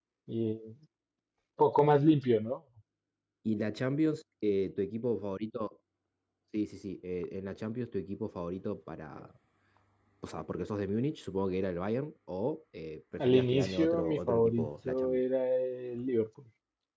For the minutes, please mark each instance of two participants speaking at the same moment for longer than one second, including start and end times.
13.2-15.2

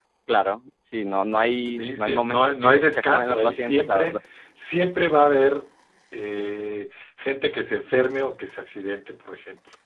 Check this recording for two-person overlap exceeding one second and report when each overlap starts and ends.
1.8-4.2

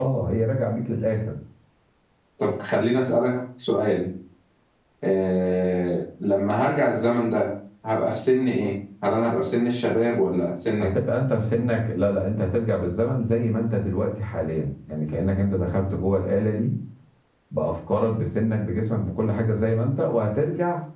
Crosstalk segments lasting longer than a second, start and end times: none

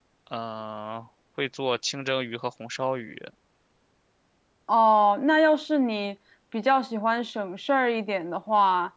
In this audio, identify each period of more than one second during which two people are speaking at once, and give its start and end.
none

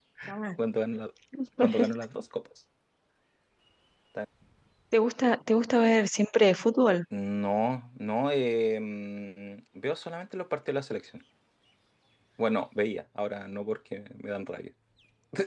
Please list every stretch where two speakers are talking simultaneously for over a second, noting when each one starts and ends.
none

